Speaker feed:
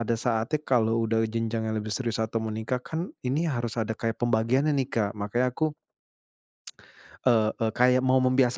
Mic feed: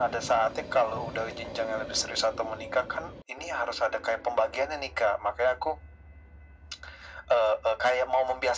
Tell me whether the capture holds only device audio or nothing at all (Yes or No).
Yes